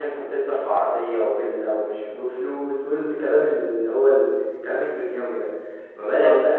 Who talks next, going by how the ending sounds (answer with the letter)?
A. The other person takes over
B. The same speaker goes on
B